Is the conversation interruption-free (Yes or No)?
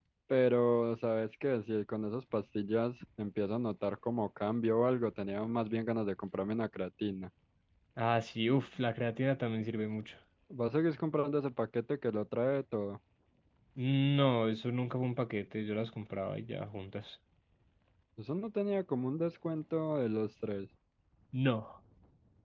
Yes